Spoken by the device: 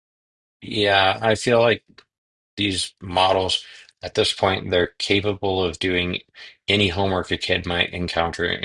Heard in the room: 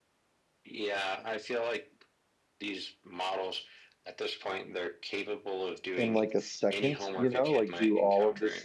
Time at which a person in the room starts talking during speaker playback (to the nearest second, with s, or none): 6 s